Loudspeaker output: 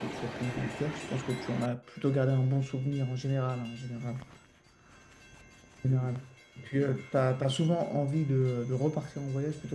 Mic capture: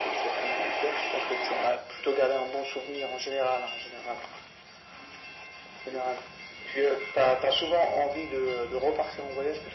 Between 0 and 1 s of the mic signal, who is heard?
echo only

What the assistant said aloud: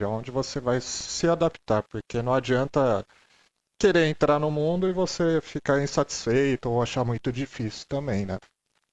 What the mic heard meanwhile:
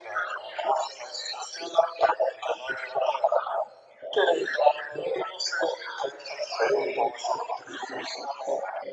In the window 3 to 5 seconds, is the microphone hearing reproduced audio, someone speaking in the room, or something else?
echo only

